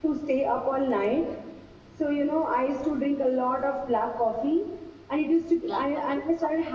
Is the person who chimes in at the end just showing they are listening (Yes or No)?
Yes